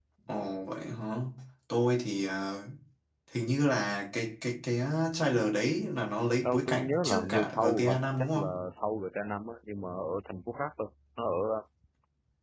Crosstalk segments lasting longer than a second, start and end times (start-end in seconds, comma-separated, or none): 6.4-8.5